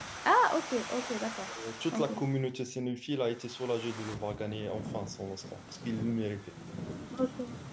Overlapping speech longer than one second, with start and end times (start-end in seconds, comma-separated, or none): none